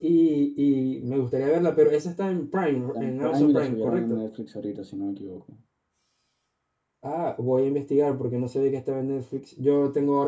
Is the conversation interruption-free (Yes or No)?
No